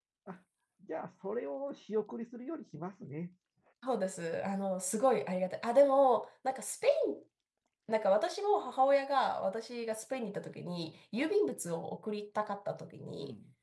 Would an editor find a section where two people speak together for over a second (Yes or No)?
No